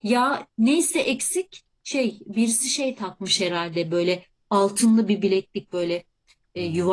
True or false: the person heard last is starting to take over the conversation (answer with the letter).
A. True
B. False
B